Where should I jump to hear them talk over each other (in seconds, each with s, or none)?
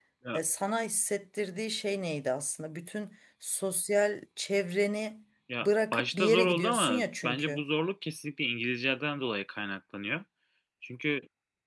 5.5 s